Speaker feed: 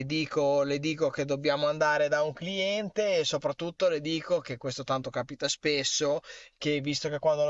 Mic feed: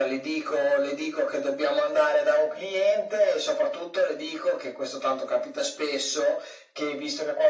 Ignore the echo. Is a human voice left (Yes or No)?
No